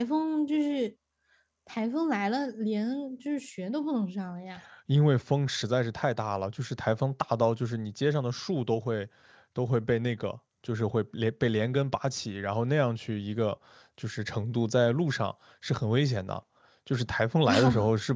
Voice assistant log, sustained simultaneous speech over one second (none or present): none